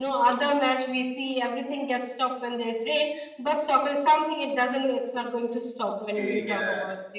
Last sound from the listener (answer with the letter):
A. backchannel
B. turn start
B